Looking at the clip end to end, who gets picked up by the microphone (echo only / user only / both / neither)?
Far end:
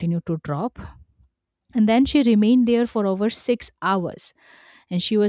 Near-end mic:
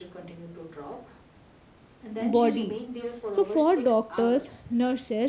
both